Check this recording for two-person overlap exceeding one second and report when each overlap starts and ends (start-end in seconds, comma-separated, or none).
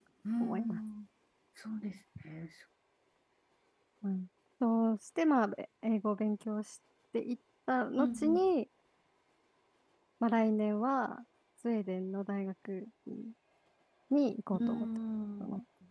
none